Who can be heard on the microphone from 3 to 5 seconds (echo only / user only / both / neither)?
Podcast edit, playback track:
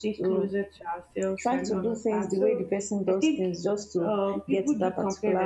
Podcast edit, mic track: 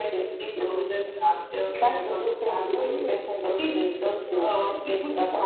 both